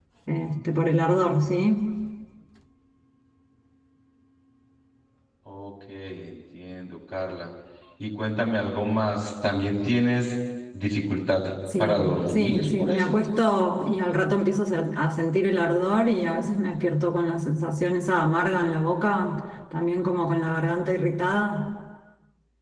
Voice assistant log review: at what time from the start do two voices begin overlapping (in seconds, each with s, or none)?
11.7 s